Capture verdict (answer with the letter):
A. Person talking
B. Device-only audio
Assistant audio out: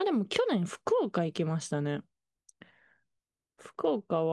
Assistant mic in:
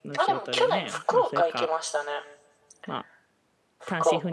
A